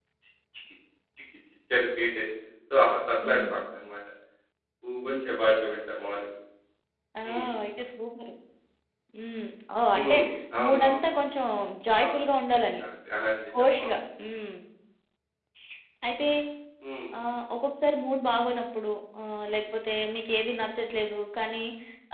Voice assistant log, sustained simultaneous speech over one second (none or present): none